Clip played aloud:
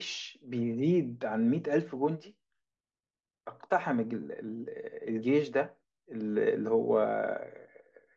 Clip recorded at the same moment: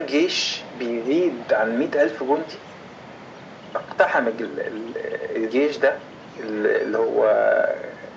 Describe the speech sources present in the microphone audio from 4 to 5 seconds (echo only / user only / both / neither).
echo only